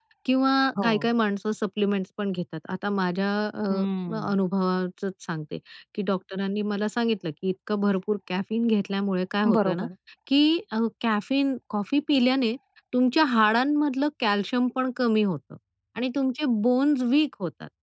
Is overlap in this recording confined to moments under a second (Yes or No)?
Yes